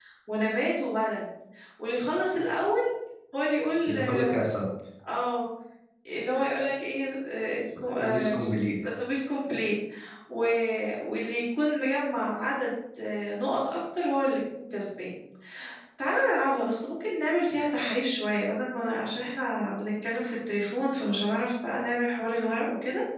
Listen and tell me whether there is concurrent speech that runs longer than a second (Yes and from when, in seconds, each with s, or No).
No